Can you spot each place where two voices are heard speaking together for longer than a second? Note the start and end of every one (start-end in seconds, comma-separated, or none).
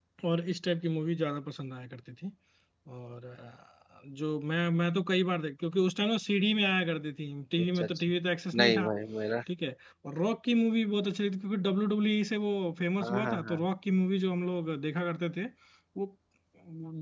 none